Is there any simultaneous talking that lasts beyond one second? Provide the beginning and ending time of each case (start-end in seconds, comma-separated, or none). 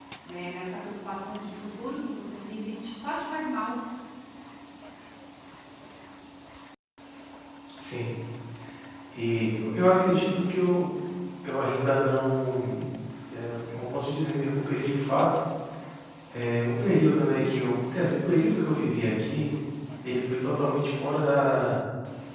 none